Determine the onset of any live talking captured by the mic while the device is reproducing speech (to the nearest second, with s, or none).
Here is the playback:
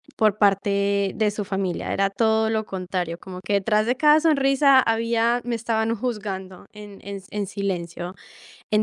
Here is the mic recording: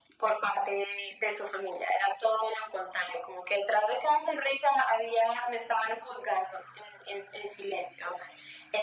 none